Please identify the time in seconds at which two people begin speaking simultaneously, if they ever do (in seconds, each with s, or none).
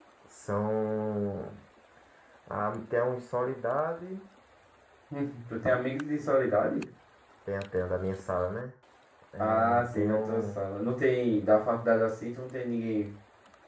9.4 s